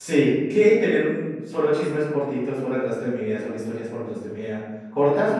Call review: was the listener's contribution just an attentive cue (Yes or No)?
Yes